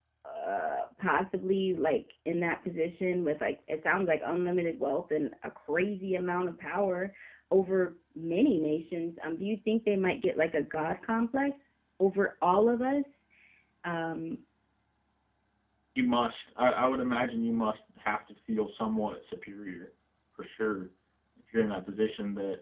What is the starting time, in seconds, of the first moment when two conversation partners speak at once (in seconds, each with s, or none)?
none